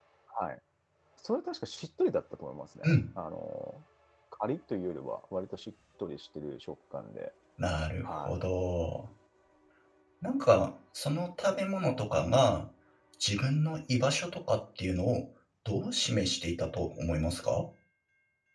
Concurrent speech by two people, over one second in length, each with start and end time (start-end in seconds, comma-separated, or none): none